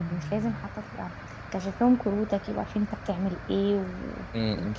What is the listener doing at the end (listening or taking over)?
listening